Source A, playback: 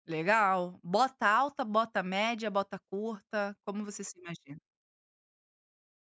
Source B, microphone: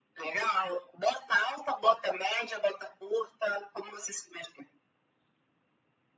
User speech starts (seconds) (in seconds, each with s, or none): none